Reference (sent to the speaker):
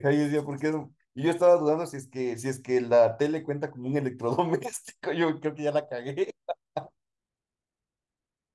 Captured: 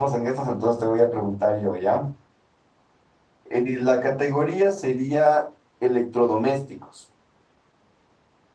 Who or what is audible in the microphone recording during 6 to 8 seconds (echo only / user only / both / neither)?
user only